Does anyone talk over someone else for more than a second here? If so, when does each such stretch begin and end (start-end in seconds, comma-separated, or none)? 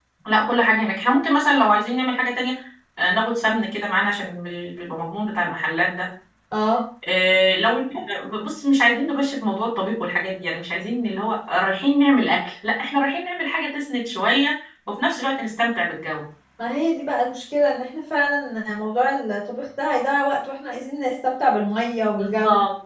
none